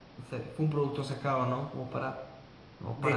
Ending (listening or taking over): taking over